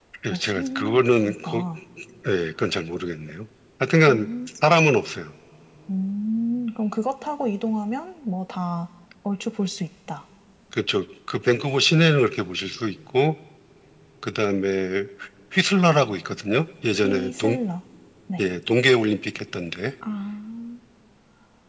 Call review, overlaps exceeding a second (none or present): present